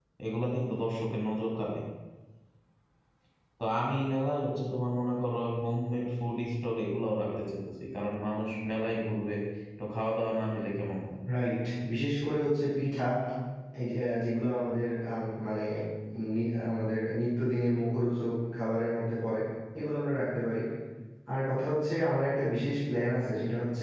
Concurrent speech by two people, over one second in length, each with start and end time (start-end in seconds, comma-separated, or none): none